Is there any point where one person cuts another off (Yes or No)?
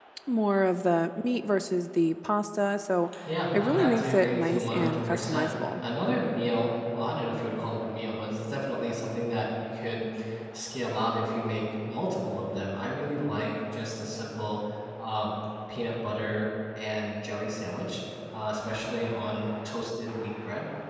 Yes